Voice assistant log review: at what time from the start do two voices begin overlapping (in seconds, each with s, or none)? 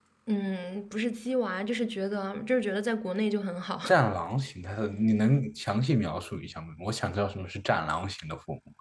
none